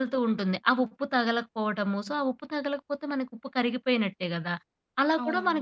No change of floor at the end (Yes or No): Yes